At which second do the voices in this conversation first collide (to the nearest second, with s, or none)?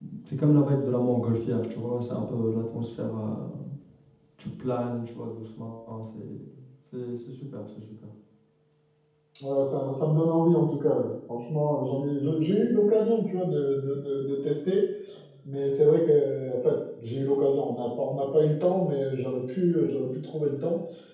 none